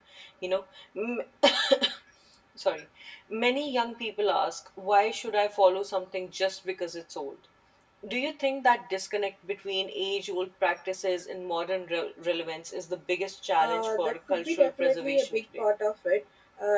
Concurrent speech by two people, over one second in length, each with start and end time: 13.6-15.6

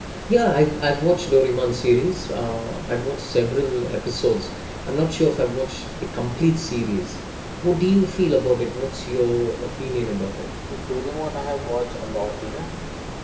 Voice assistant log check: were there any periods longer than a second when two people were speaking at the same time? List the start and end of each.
none

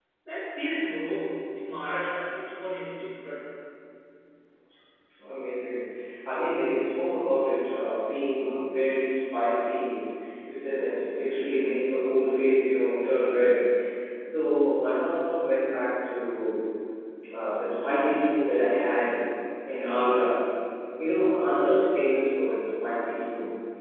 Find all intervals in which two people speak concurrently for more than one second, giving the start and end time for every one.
none

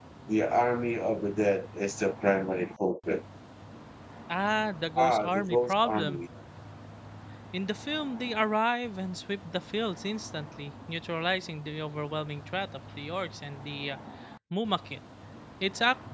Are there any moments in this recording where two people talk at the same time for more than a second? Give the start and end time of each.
5.0-6.2

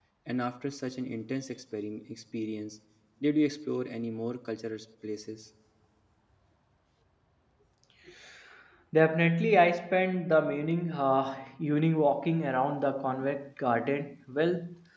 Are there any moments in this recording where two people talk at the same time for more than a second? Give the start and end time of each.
none

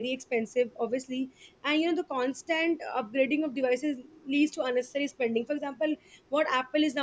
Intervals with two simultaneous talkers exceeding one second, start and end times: none

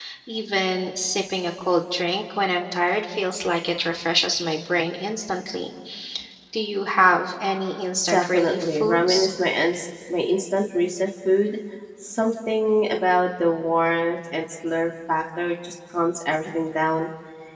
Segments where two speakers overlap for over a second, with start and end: 8.0-9.3

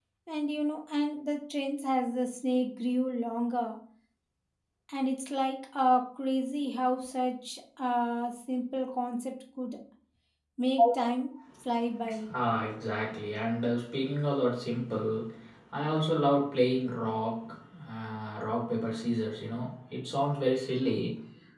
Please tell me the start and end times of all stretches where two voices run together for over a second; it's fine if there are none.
none

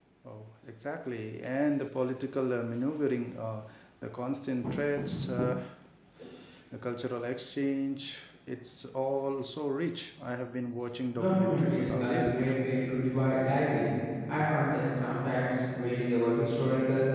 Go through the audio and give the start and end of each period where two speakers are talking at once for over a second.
11.2-12.4

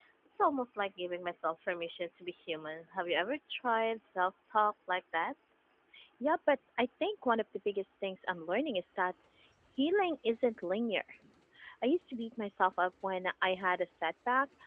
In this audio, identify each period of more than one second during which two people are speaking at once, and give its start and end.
none

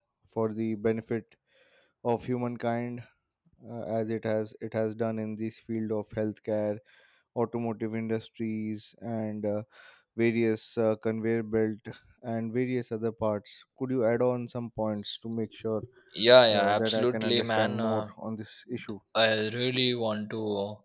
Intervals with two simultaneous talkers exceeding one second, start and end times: 16.5-18.1

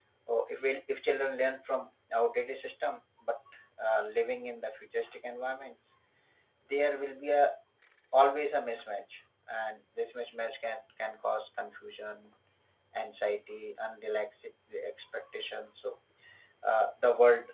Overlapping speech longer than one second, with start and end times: none

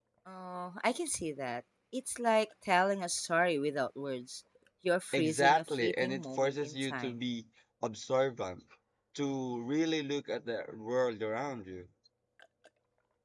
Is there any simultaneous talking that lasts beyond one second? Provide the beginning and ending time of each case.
5.1-7.2

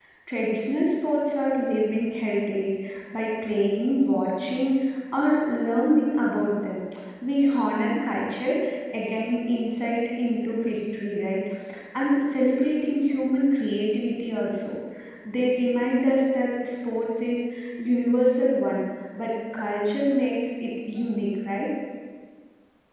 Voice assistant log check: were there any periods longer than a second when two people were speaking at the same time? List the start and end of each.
none

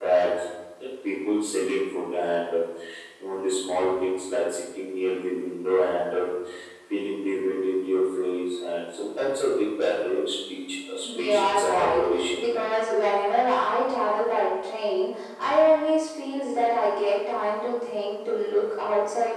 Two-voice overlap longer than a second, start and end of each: 11.0-12.4

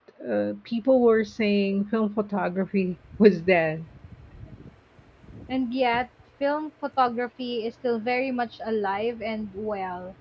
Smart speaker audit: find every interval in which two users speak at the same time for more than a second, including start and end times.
none

